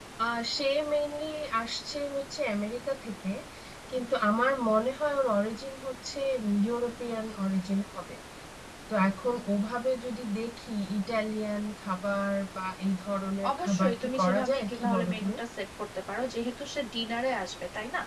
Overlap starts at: 13.4 s

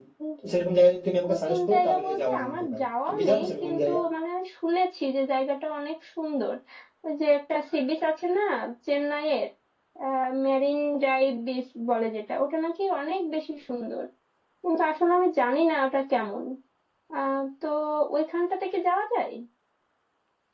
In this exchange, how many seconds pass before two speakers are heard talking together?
1.3 s

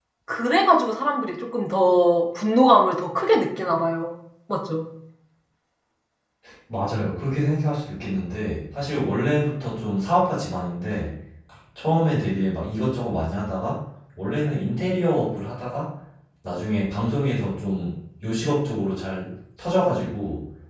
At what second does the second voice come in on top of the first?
none

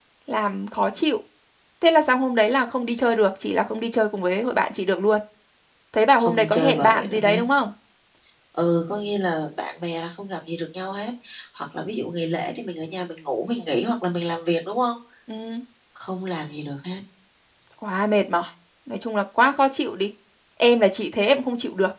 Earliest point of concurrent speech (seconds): 6.2 s

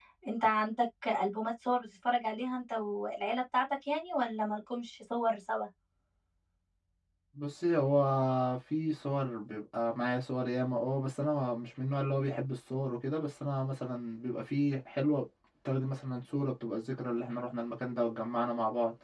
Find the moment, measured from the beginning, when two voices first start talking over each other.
none

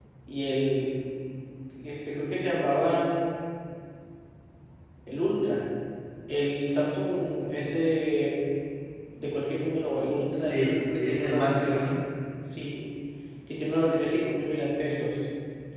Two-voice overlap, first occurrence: 10.5 s

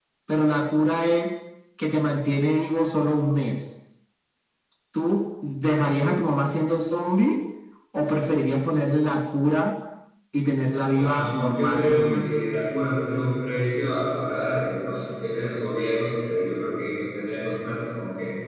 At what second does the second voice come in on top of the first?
10.9 s

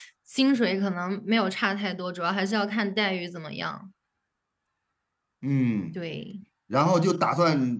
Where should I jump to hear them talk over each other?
none

